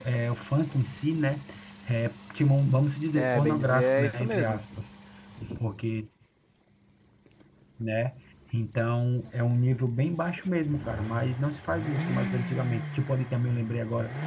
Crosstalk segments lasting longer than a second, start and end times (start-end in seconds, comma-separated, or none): 3.1-4.6